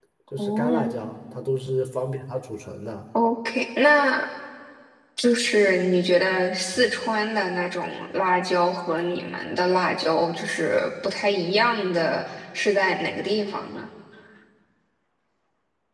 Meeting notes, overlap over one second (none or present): none